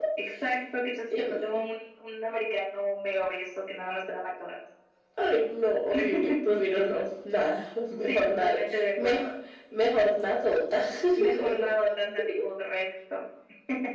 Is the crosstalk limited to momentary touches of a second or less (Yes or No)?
No